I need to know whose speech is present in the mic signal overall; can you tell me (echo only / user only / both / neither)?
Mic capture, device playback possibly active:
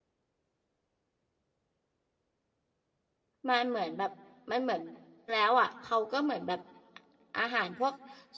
user only